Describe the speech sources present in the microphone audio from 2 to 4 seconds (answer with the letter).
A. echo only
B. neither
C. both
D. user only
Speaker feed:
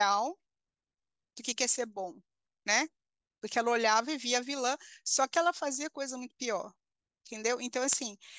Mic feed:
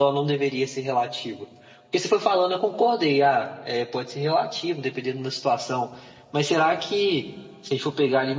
D